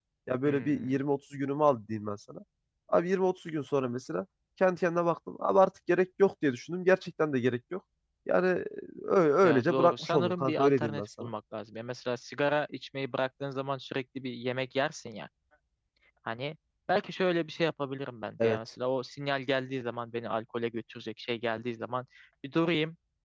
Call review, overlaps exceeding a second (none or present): present